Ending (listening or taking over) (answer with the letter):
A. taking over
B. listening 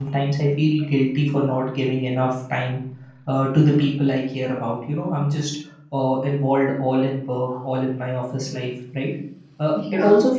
B